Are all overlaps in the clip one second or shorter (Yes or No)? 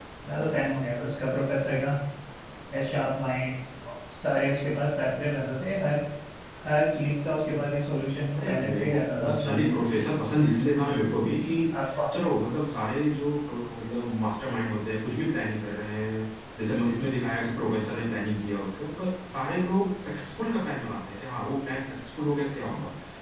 No